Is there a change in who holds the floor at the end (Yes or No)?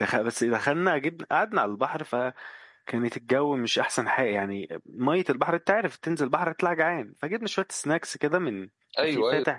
No